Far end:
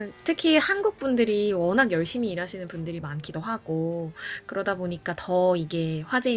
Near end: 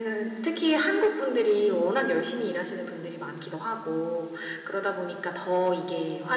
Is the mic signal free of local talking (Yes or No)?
Yes